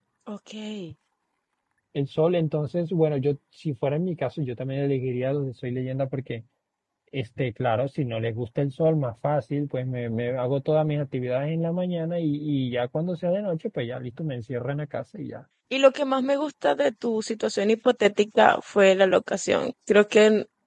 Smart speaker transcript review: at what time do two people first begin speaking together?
none

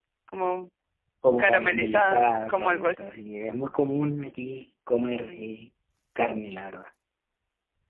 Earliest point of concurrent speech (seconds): 1.4 s

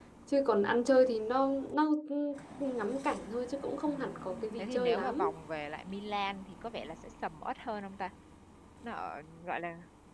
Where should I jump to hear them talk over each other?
3.9 s

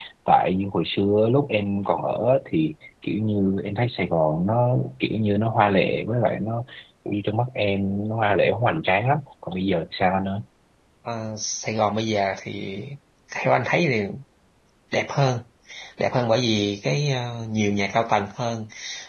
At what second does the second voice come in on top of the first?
none

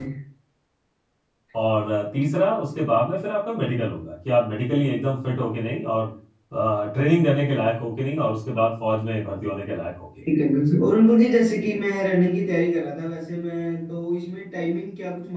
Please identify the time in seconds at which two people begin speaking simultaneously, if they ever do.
none

